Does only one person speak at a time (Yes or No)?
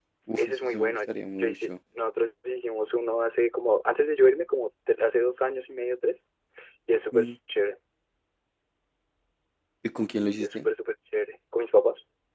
No